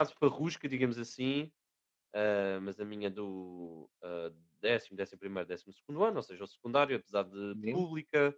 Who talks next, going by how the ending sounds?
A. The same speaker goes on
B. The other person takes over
A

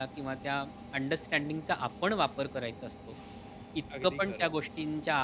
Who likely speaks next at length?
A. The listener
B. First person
B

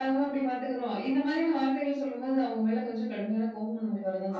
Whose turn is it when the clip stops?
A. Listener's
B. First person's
A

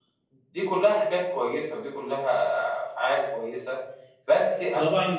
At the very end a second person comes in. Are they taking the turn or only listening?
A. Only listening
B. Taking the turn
B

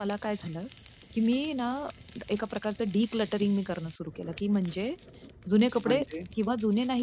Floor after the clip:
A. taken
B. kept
B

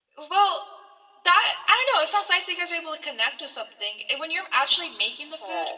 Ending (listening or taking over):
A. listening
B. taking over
A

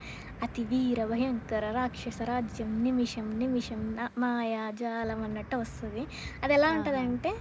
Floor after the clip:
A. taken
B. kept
B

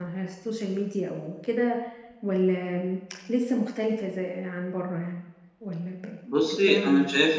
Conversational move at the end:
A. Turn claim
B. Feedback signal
A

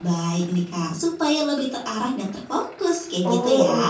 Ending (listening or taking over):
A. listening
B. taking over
B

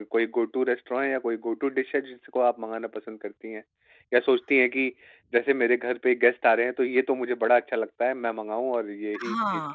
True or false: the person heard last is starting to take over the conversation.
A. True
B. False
A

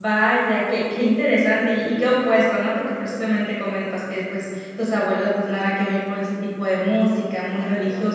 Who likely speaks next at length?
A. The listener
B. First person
B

